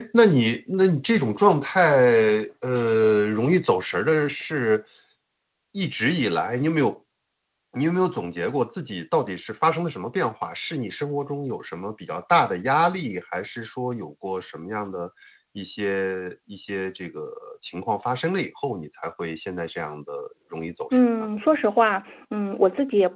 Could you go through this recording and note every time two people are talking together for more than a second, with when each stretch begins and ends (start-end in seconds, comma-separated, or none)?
none